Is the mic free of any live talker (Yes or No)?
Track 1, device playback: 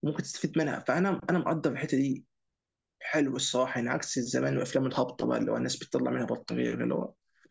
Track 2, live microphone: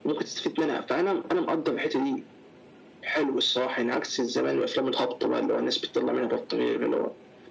Yes